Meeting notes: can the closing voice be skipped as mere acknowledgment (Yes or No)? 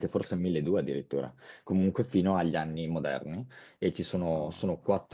Yes